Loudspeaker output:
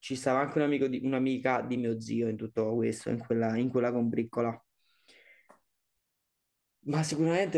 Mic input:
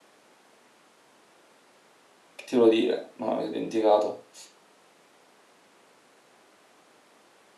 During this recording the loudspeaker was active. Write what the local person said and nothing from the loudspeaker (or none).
che ti volevo dire? No, mi sono dimenticato.